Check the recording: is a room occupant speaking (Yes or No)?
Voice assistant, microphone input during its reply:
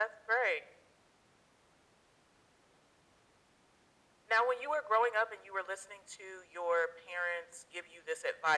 No